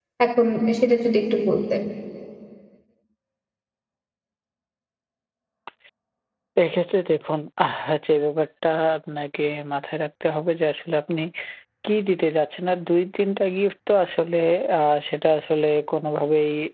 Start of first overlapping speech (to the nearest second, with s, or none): none